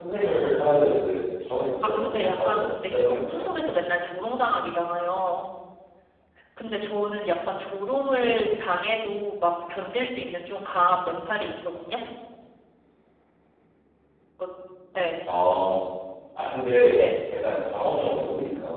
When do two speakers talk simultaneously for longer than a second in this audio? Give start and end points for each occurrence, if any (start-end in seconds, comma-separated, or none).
1.8-3.5